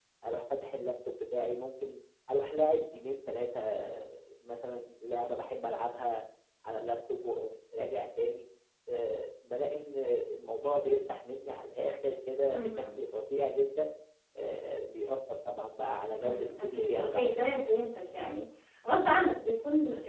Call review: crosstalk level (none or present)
present